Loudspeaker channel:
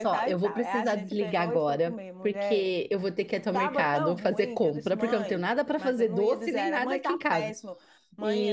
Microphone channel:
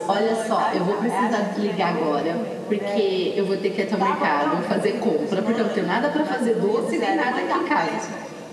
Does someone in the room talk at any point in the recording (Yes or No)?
No